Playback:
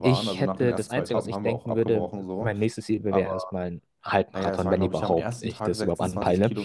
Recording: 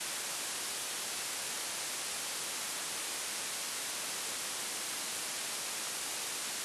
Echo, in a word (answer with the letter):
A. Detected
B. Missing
B